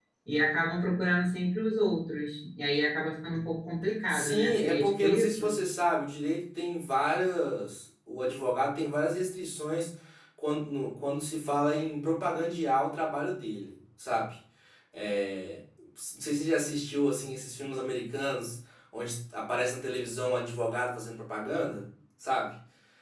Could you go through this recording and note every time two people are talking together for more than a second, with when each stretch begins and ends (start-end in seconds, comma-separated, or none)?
4.1-5.4